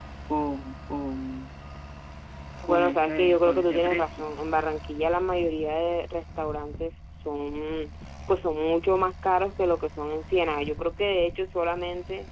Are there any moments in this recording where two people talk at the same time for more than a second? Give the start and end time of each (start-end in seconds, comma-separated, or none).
2.7-4.3